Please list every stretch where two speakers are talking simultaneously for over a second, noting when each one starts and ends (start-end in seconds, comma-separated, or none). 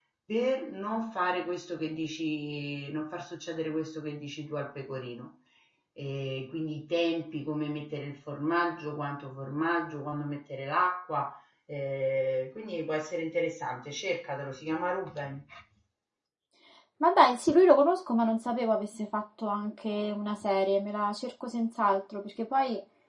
none